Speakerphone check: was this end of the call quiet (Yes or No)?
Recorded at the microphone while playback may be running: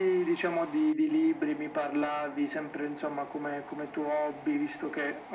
Yes